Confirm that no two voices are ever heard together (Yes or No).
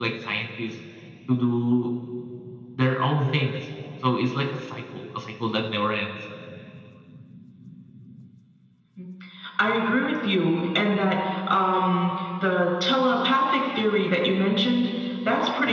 Yes